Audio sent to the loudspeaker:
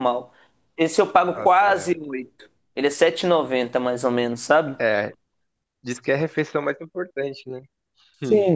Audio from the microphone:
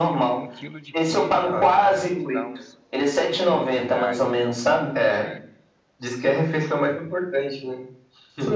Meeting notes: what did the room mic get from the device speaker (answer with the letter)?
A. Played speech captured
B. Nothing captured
A